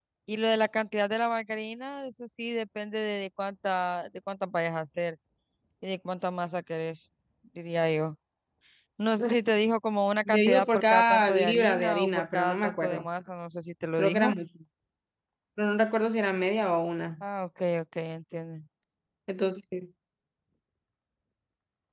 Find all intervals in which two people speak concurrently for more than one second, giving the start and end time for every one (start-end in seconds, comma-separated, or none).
10.2-13.0